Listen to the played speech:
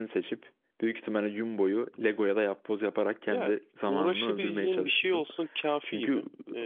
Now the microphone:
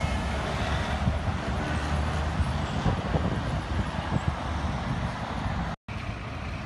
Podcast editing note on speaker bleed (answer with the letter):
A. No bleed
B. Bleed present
A